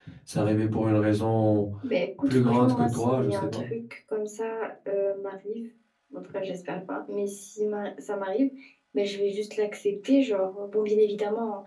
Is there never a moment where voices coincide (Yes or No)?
No